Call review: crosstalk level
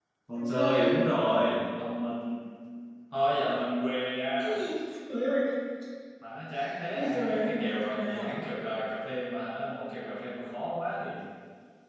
present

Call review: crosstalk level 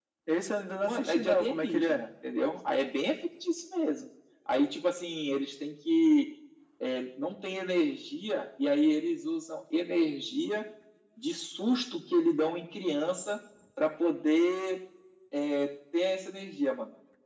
present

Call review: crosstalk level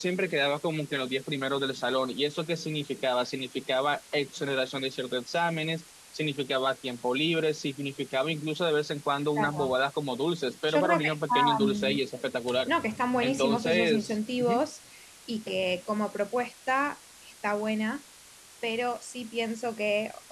present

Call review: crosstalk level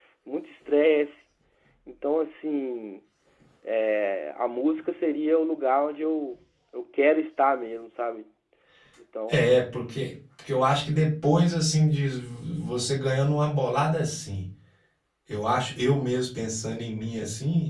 none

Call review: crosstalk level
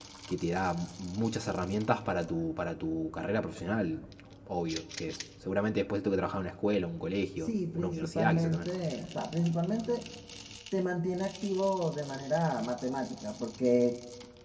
present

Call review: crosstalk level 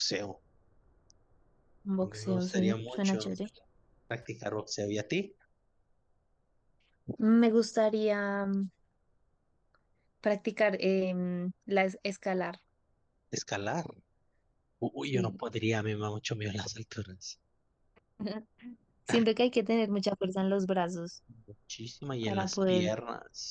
present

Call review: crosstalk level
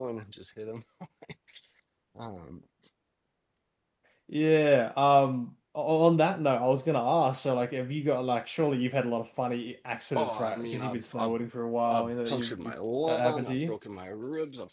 present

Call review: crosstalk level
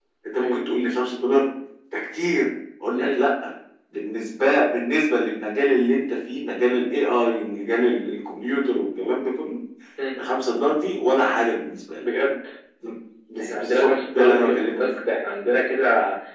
present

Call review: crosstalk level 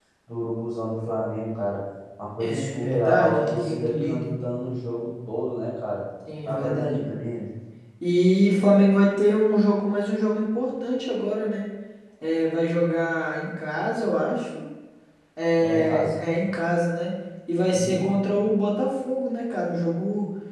present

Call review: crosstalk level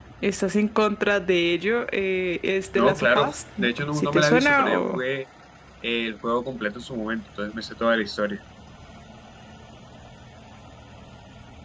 present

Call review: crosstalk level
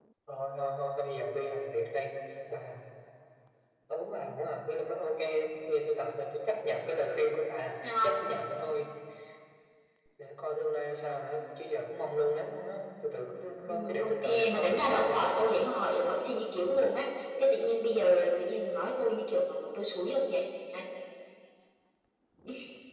present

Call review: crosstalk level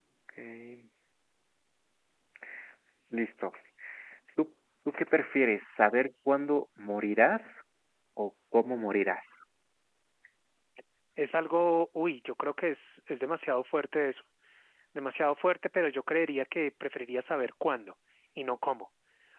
none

